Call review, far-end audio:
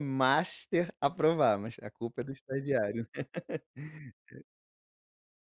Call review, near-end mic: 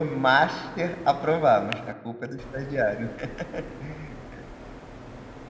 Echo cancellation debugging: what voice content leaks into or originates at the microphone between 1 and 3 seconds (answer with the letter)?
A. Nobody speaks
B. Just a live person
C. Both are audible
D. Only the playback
D